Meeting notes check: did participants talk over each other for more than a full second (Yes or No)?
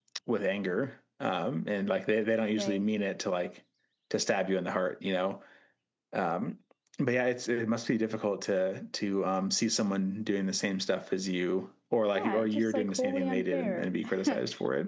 Yes